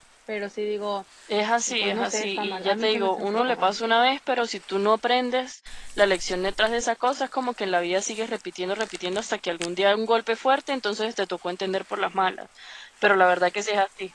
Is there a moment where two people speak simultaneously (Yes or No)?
Yes